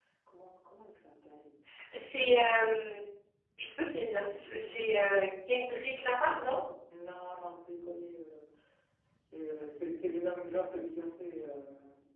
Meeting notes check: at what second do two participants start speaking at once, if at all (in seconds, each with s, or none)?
none